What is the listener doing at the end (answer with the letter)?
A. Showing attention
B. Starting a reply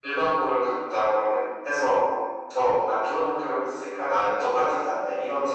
B